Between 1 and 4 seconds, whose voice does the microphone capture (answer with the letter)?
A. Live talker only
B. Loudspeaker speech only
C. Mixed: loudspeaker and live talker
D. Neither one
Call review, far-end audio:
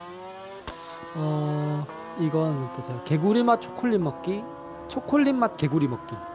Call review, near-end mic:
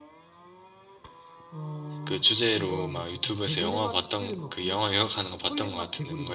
C